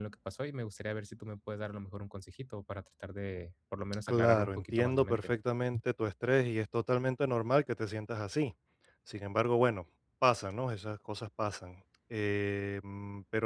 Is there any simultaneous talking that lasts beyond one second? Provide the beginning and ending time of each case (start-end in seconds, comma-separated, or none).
4.1-5.3